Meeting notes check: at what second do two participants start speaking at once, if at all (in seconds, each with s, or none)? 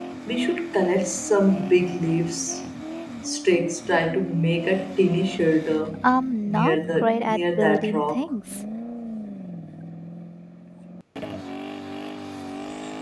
6.5 s